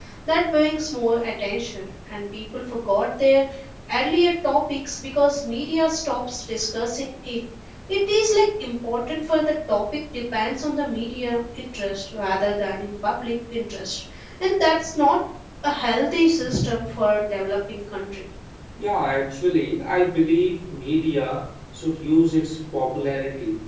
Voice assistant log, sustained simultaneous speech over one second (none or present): none